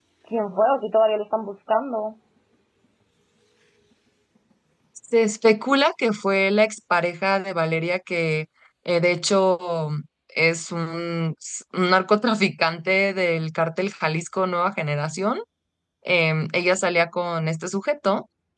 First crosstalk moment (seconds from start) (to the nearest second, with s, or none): none